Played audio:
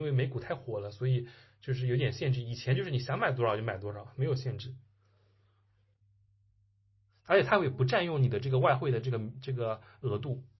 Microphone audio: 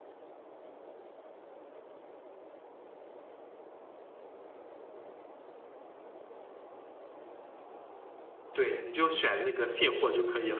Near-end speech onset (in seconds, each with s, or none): 8.5 s